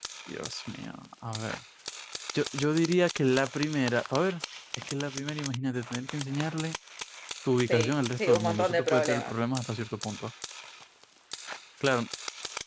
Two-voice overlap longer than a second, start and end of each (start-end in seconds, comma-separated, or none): 7.7-9.3